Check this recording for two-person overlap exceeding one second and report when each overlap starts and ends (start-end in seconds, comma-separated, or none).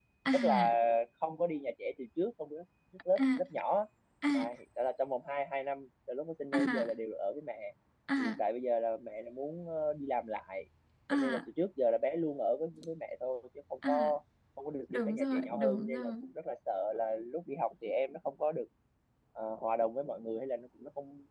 14.9-16.1